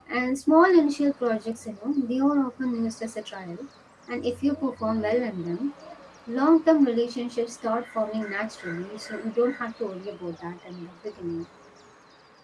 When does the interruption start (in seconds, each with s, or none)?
none